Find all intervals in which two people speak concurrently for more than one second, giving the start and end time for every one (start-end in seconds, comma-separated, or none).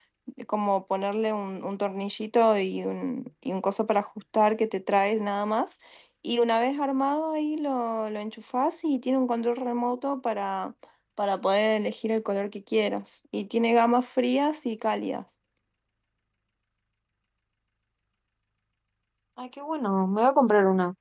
none